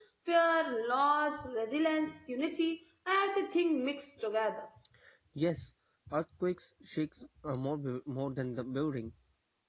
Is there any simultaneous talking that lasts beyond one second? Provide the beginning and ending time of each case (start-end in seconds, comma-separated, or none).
none